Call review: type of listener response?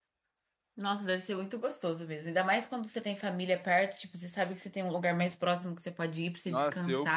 taking over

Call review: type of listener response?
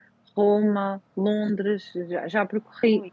listening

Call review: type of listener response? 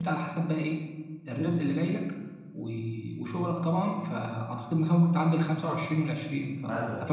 taking over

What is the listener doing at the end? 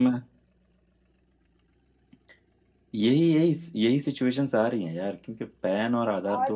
taking over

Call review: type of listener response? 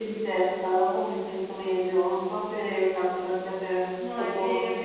taking over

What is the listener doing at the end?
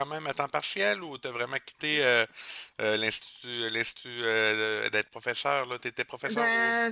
taking over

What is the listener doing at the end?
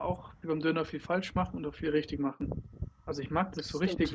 listening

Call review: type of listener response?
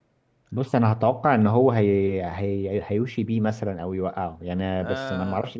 taking over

